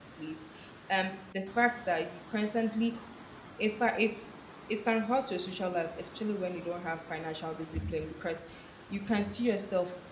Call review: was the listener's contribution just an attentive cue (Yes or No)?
Yes